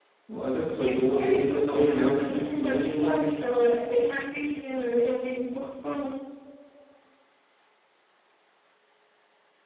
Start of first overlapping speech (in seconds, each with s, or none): 0.7 s